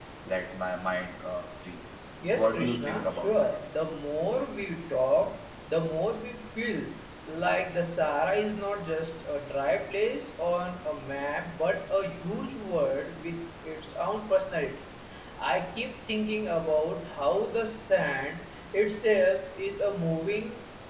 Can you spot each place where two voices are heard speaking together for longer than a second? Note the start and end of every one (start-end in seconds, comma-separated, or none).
2.3-3.5